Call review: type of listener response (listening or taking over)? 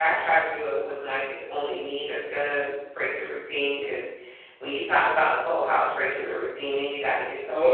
listening